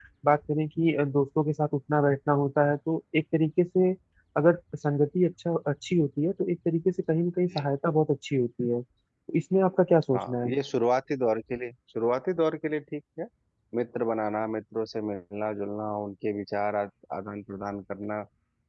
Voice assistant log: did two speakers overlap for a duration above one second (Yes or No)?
No